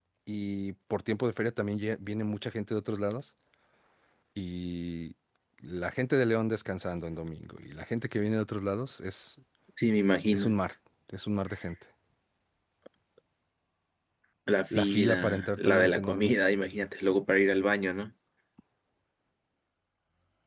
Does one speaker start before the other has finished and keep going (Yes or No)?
Yes